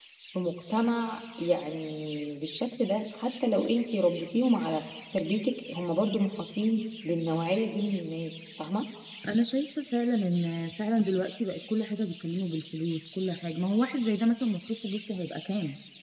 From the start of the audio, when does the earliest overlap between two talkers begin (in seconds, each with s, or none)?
none